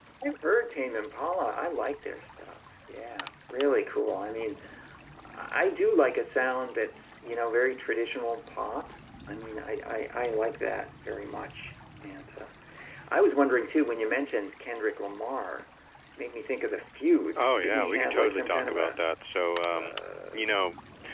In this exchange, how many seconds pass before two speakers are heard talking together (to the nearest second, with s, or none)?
17 s